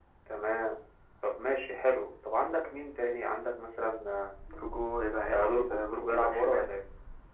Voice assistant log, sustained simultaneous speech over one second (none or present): present